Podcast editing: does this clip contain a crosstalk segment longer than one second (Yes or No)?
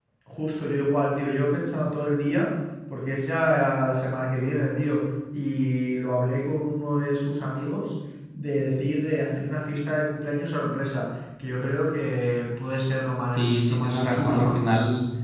Yes